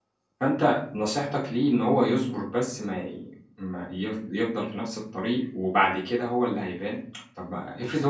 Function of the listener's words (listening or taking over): listening